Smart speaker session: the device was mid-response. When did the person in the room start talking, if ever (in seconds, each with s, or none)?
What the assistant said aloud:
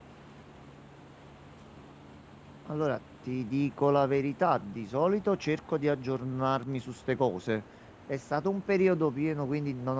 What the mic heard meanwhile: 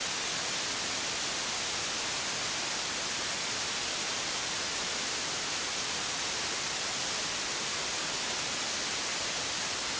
none